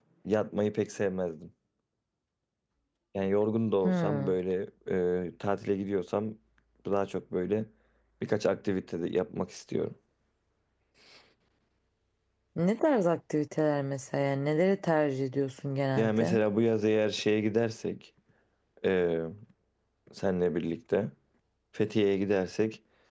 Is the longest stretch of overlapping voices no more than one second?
Yes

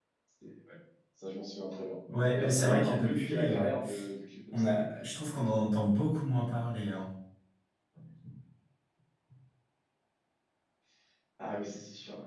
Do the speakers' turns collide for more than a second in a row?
Yes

